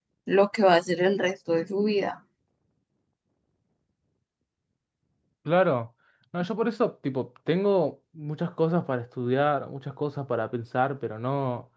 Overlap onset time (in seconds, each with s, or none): none